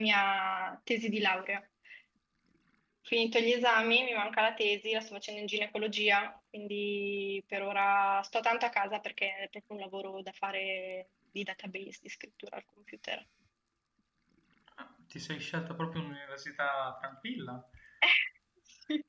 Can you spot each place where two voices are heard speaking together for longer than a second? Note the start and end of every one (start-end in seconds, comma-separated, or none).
none